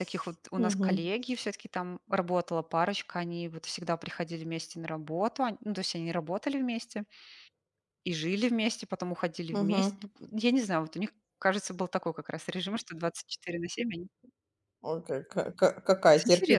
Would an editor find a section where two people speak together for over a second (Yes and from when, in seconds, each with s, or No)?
No